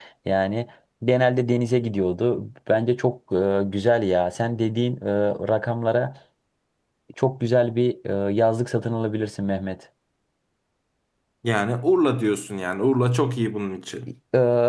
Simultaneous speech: No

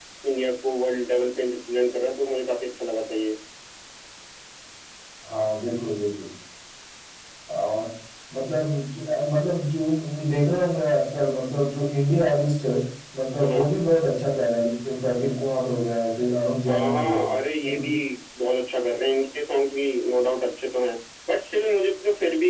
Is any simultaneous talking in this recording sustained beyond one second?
No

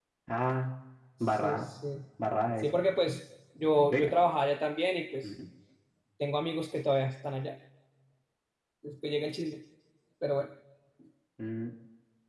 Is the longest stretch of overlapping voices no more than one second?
Yes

